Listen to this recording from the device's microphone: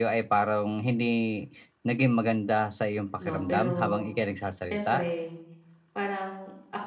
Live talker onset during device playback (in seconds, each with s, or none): 3.2 s